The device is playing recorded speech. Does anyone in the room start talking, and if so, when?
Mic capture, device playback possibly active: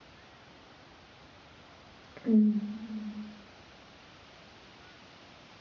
2 s

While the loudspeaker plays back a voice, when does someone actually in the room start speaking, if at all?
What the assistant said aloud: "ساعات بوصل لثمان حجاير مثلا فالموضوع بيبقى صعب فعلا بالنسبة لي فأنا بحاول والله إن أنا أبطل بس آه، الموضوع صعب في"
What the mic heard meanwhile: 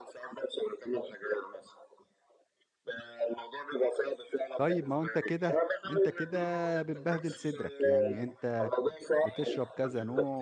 5 s

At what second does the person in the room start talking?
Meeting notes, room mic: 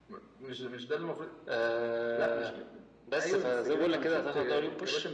none

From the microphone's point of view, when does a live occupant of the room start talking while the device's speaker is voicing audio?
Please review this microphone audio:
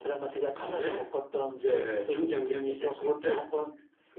none

